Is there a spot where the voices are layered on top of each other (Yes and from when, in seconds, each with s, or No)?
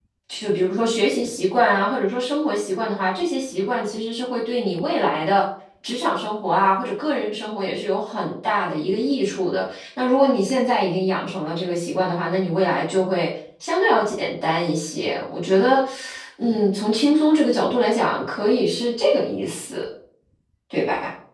No